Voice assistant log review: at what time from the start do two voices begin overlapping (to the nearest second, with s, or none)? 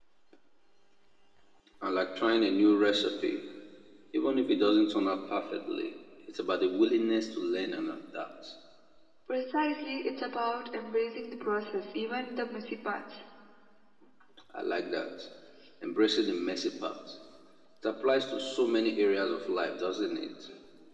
none